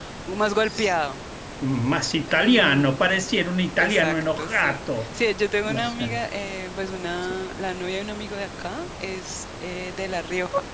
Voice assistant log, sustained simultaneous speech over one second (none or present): present